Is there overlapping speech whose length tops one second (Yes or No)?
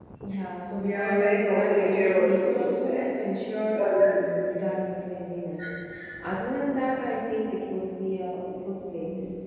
Yes